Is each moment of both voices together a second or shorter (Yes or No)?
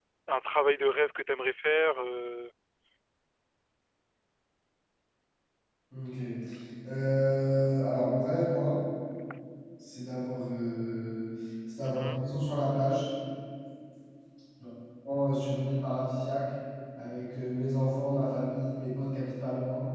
Yes